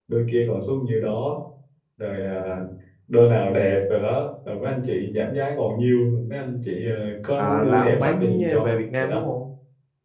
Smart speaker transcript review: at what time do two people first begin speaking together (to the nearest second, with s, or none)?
7 s